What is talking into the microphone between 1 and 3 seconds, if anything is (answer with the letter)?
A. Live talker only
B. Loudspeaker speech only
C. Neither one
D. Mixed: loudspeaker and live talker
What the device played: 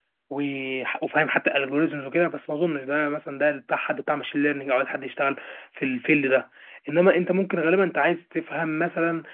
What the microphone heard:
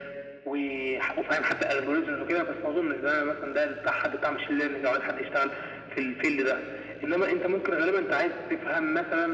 B